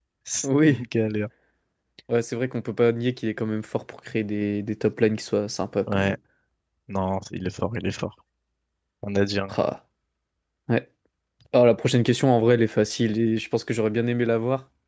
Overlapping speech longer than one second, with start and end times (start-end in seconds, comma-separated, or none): none